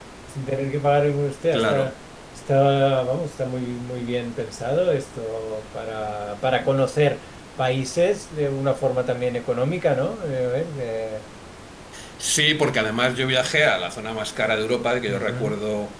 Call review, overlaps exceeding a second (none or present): none